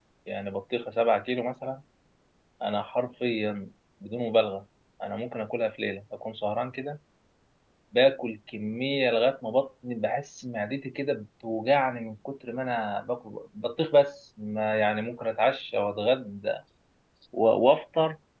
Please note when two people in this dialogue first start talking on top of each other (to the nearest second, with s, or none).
none